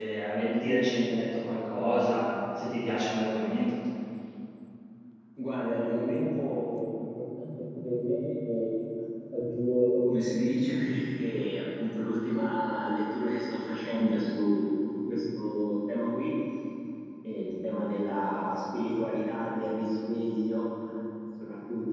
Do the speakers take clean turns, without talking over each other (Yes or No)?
Yes